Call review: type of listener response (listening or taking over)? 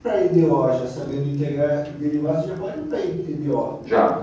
taking over